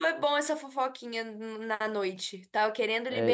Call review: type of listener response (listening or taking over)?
taking over